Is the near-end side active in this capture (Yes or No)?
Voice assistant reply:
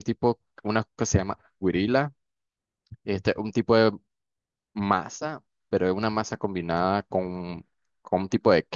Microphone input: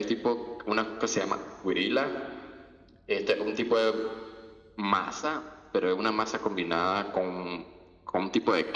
No